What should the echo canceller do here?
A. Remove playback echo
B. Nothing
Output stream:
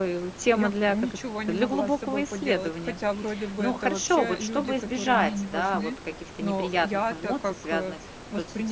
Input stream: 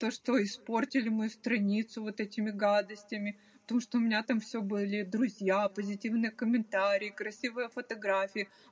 B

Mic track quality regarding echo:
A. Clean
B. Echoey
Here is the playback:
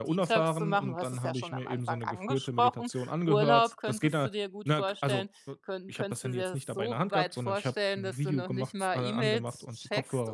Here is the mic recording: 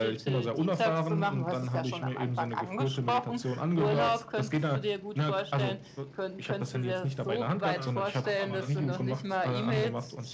B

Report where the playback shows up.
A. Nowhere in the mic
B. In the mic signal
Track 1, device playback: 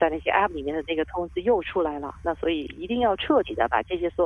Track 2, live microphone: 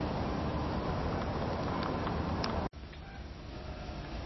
A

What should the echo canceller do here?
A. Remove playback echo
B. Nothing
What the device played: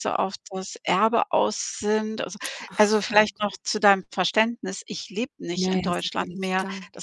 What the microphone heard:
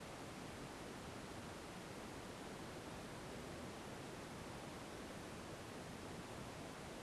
B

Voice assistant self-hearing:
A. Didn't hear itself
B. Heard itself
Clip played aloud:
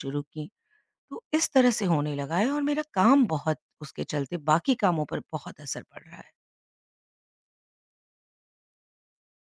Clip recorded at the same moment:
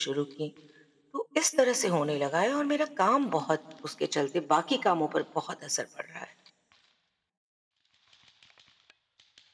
B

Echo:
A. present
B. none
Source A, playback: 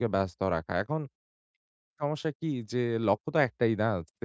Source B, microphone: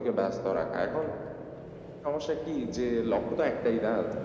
A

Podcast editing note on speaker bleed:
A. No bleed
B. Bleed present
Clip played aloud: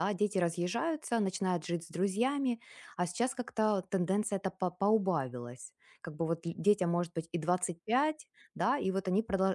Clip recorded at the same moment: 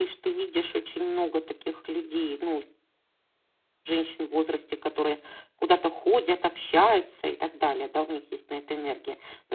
A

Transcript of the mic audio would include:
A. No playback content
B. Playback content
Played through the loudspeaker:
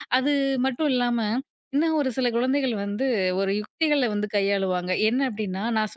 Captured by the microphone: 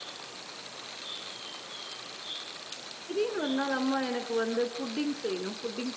A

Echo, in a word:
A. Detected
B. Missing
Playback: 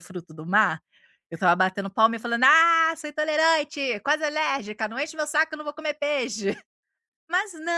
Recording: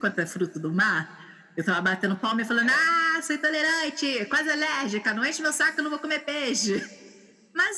A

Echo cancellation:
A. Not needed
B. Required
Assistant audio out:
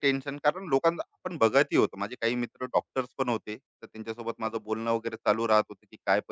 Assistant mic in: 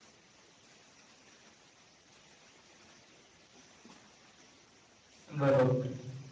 A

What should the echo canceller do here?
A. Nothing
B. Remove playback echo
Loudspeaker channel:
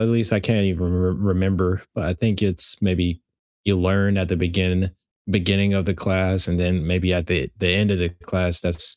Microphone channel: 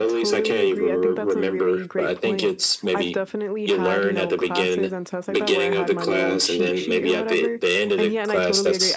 B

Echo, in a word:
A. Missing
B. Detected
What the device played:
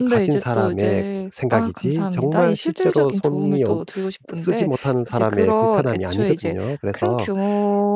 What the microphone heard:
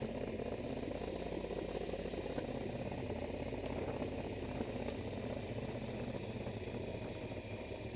A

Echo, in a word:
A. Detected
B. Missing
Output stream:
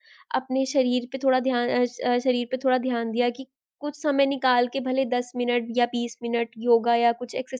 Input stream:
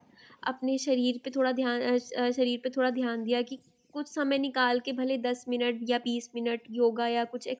A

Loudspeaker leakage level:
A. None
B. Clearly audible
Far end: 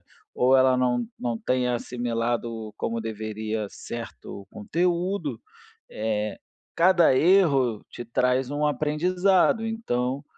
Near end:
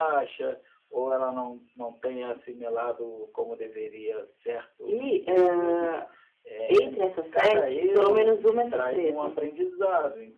B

